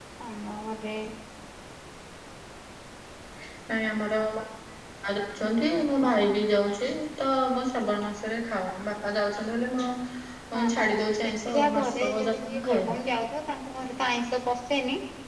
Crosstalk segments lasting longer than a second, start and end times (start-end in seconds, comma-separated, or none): 10.5-13.0